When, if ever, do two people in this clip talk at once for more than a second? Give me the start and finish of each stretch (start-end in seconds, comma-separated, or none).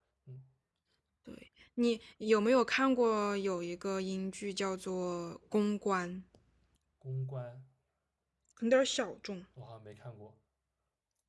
none